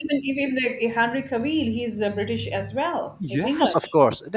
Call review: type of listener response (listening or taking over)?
taking over